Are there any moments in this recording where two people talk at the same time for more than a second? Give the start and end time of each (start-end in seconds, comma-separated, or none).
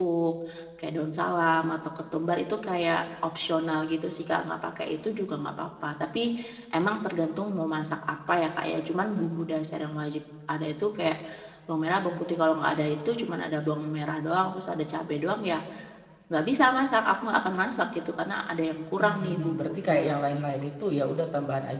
19.0-20.4